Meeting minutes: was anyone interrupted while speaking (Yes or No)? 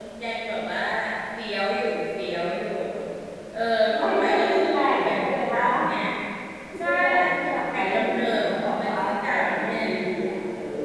Yes